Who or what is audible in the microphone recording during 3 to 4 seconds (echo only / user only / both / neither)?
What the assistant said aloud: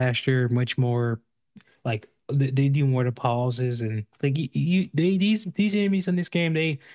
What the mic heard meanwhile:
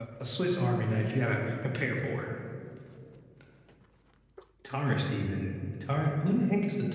neither